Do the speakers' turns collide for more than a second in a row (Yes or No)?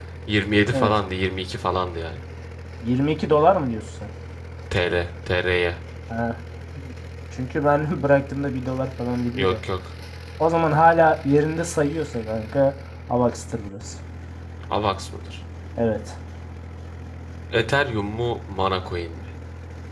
No